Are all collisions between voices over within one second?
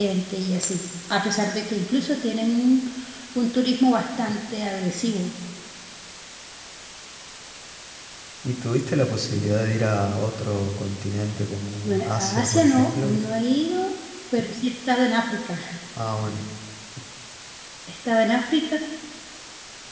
No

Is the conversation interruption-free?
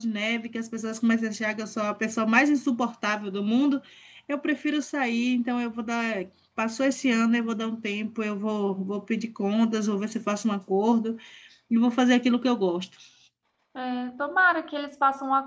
Yes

